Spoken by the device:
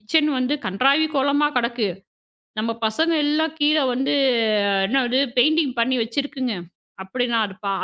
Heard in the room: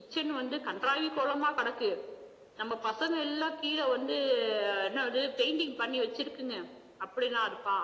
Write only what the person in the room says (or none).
none